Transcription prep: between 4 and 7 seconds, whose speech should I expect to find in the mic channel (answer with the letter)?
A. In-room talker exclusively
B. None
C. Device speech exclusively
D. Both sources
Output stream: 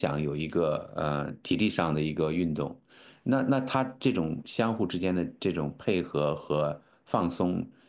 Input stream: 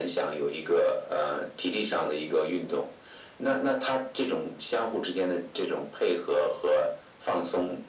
C